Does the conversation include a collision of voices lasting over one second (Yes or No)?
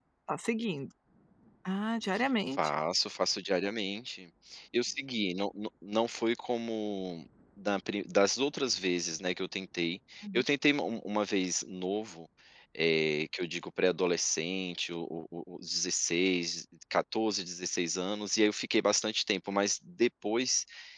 No